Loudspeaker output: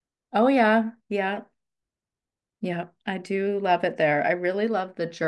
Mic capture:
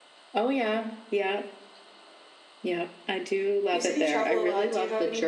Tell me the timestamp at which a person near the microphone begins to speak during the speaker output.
3.7 s

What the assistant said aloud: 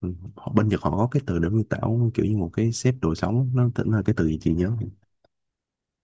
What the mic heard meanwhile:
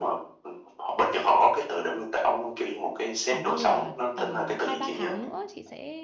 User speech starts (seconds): 3.2 s

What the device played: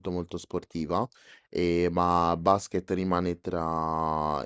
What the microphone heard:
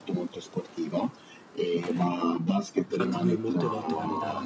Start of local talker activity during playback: 2.9 s

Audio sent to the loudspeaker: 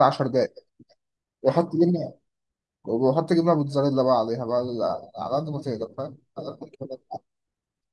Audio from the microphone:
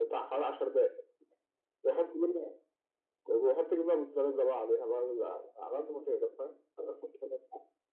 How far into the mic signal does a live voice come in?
none

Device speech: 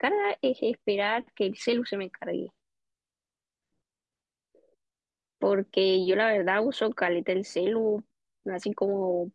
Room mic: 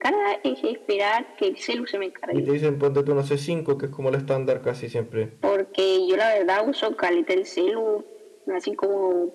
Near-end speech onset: 2.3 s

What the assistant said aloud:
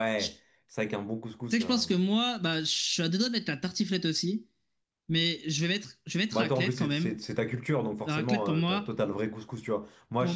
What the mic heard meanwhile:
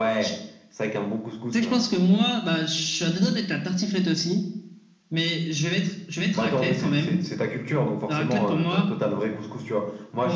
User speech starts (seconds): none

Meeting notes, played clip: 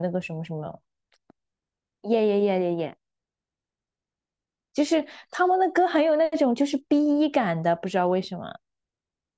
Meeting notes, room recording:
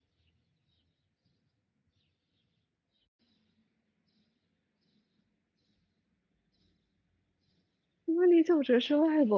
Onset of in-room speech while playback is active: 8.1 s

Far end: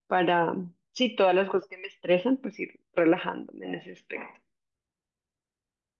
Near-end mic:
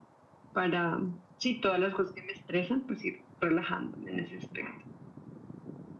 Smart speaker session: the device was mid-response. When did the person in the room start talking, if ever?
none

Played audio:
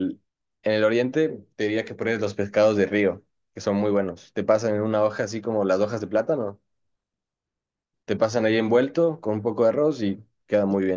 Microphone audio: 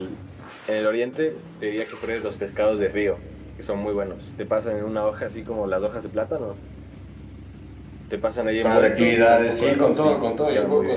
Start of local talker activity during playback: 8.6 s

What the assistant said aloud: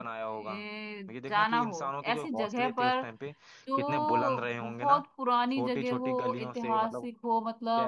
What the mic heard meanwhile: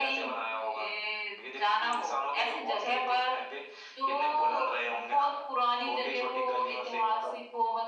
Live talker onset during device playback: none

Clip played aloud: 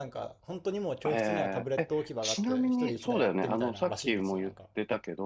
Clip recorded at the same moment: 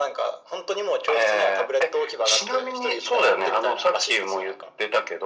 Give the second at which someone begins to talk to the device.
none

